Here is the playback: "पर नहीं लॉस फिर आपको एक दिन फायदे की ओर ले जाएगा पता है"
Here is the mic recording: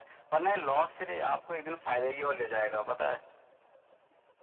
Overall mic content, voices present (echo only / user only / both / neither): echo only